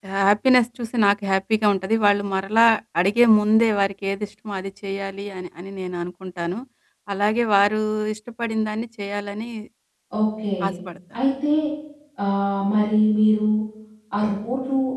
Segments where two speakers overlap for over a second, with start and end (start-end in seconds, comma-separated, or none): none